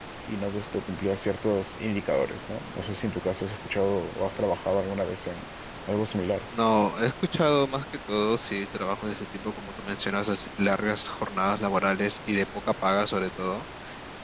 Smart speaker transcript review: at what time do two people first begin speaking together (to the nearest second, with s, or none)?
none